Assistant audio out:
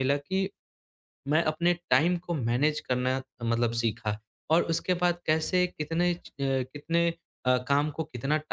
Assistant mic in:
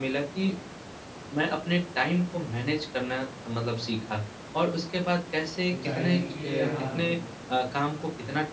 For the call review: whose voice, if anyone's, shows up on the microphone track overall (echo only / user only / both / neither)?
both